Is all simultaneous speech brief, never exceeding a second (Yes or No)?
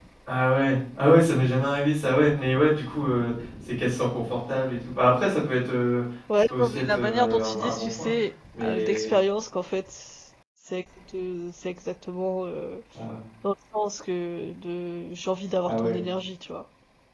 No